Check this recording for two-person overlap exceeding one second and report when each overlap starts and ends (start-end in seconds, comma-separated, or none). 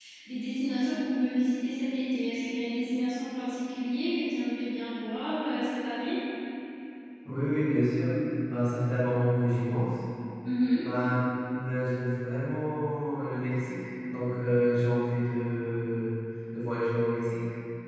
none